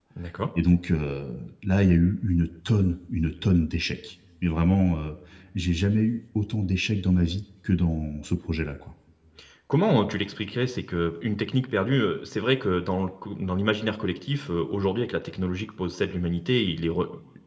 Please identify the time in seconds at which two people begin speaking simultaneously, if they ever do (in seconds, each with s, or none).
none